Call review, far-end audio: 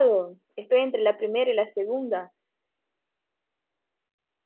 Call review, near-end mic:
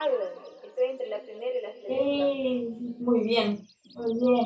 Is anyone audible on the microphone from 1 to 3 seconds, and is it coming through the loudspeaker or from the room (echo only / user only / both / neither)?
both